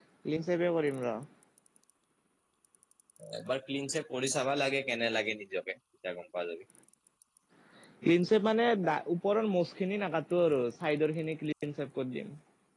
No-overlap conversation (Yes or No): Yes